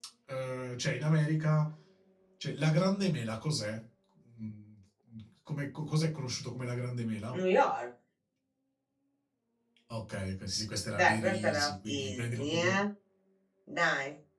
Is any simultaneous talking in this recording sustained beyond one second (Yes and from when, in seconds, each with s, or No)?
Yes, from 10.9 s